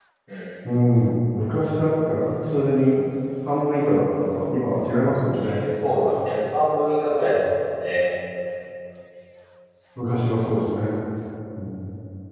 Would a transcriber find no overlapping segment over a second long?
Yes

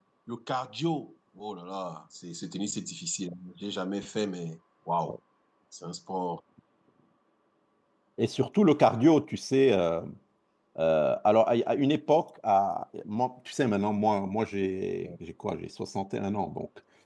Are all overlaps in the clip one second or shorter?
Yes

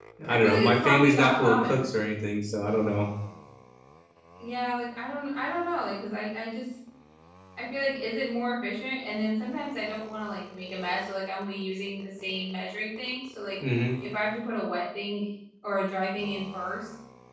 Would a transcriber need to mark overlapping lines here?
Yes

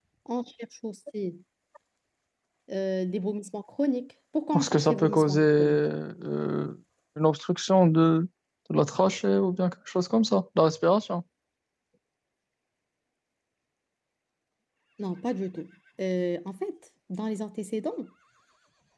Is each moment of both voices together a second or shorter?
No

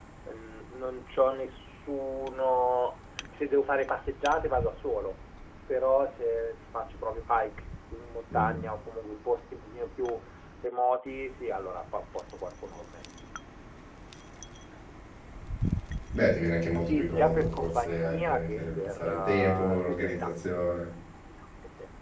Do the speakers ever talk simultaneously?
Yes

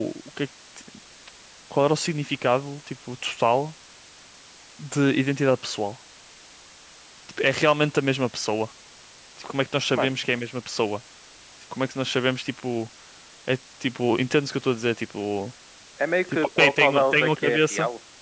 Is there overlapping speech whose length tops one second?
Yes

